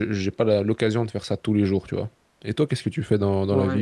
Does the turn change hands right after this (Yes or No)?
Yes